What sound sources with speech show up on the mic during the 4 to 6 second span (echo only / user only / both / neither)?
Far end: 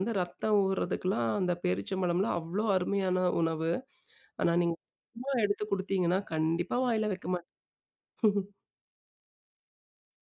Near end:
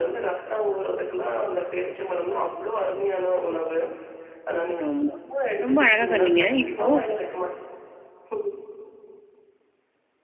both